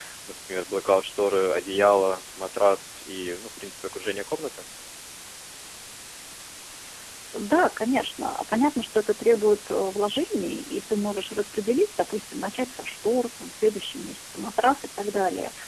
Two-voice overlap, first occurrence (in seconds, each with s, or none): none